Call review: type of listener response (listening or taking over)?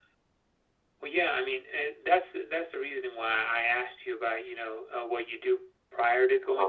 listening